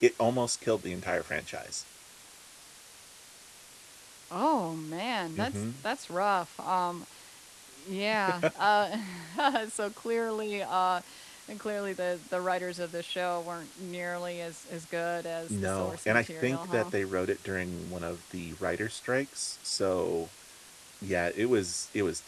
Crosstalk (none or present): present